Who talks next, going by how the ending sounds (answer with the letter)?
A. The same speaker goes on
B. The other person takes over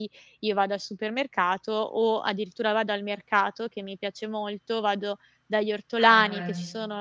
A